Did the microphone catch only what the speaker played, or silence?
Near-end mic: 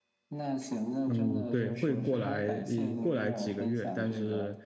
No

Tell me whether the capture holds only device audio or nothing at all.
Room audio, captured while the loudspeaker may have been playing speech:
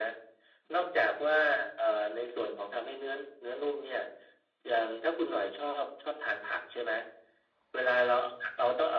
Yes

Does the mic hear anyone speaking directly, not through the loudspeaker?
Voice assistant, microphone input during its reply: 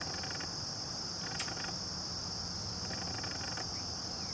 No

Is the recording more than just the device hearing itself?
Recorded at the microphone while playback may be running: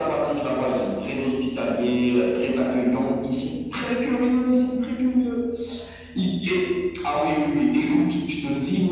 No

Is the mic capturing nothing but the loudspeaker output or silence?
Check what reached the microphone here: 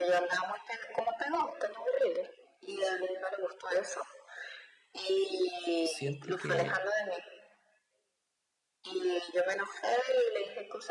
No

